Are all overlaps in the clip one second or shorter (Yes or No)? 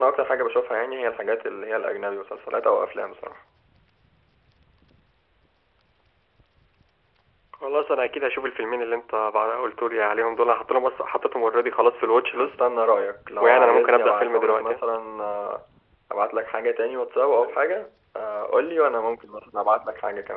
No